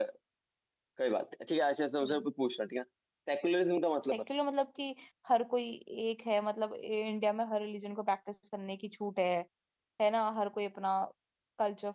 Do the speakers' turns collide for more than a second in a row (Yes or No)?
No